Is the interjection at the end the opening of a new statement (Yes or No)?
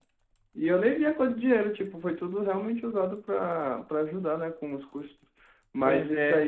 No